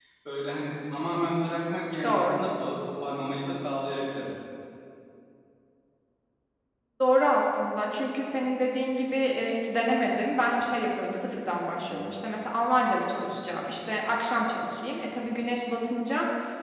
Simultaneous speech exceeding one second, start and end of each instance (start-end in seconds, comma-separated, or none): none